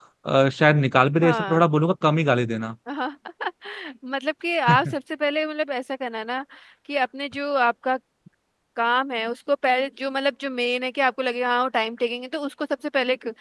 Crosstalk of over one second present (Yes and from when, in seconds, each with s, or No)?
No